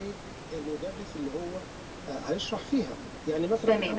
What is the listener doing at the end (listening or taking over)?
taking over